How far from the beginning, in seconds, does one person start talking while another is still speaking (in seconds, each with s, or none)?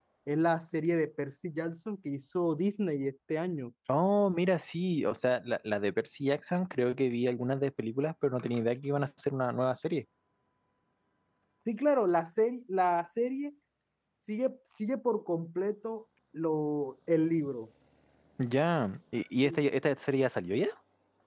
none